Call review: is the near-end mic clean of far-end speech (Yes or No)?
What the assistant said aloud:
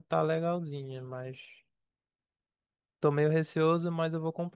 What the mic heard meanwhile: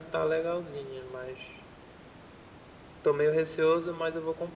No